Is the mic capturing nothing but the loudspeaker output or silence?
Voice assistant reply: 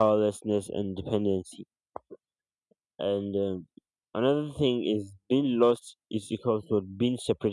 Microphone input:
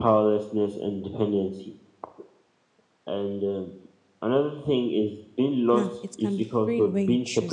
No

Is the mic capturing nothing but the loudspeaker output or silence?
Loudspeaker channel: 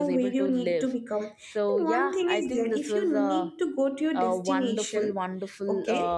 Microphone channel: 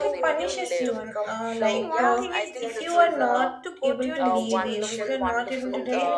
No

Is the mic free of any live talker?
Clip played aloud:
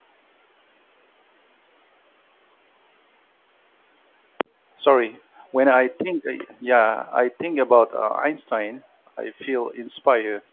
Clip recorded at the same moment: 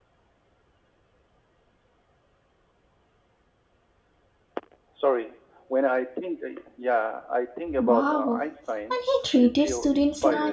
No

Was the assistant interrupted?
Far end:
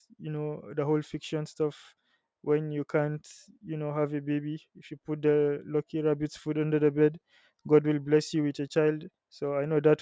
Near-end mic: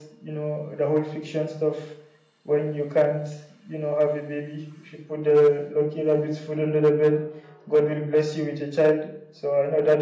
No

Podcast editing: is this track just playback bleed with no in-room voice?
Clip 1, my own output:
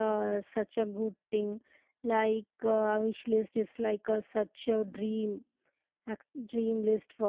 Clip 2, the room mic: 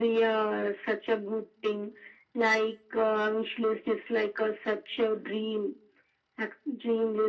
Yes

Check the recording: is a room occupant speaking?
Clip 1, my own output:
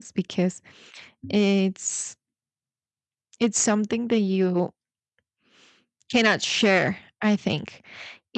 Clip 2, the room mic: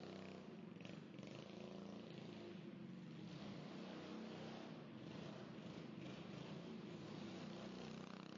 No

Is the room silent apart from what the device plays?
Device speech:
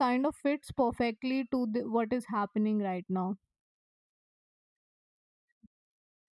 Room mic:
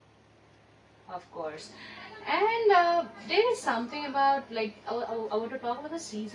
No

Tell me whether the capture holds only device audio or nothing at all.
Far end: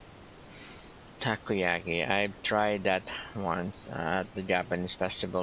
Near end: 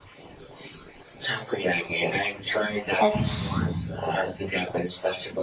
No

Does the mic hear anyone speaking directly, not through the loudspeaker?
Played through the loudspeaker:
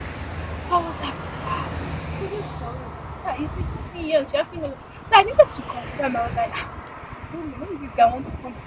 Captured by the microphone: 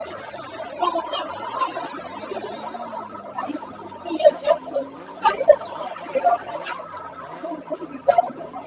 No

